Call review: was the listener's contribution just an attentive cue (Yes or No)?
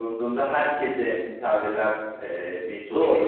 Yes